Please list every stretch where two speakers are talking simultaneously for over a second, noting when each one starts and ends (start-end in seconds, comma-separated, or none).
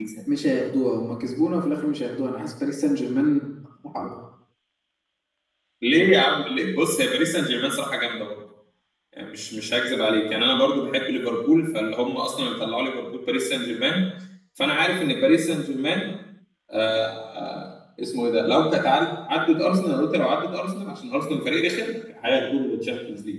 none